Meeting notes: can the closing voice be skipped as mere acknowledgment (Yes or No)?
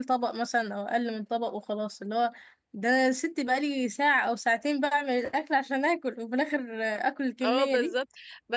No